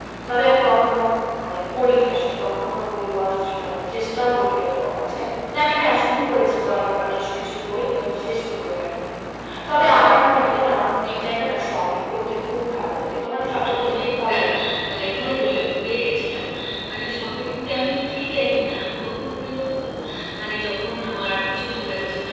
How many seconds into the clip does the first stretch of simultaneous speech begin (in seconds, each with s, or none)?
13.1 s